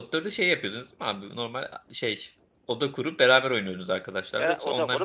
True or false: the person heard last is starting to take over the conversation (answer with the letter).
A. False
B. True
B